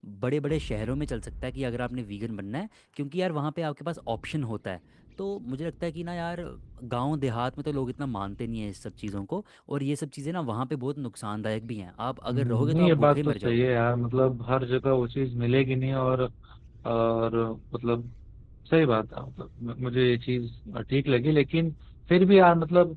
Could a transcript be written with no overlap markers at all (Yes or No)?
No